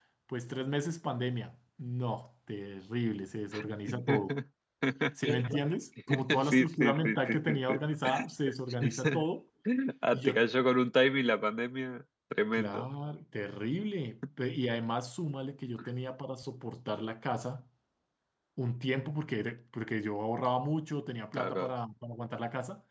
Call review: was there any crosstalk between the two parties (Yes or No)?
Yes